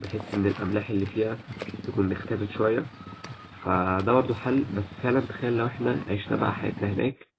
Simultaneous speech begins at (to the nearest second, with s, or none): none